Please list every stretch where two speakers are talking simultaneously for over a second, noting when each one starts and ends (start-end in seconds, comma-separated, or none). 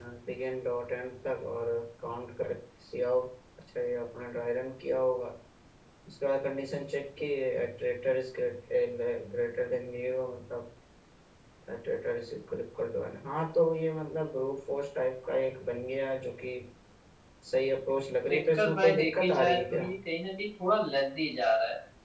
18.3-19.9